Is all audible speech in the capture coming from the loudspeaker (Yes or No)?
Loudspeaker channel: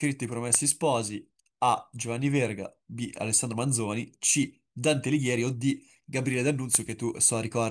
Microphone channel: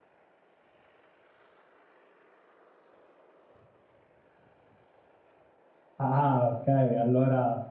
No